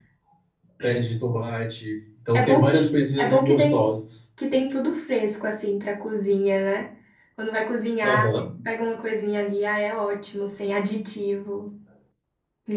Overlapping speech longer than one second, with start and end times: 2.3-3.8

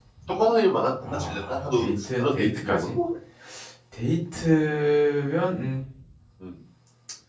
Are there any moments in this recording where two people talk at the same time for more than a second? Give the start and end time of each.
1.0-3.0

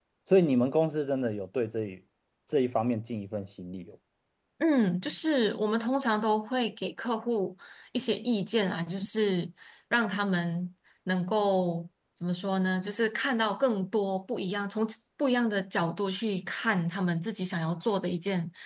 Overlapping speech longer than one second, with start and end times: none

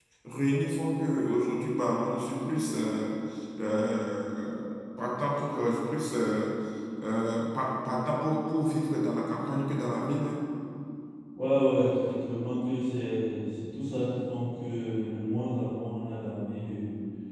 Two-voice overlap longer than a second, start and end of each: none

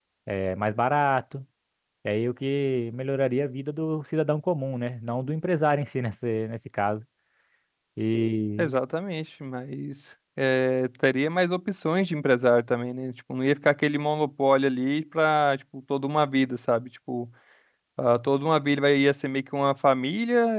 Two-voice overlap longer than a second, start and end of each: none

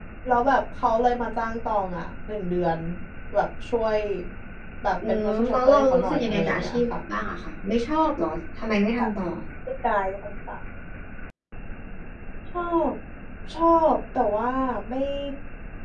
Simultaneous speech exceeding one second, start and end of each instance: 5.1-6.8

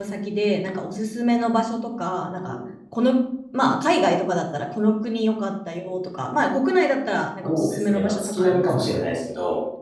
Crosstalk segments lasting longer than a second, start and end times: 7.4-8.7

